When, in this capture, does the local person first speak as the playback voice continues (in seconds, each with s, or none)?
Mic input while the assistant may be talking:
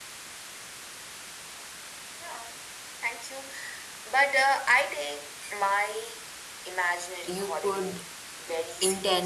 7.2 s